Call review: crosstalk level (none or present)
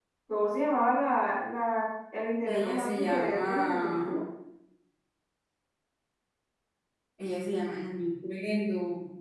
present